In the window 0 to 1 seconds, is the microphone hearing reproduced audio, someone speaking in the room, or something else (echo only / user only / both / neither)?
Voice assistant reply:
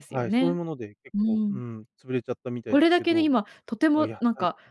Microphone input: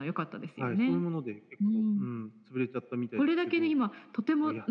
echo only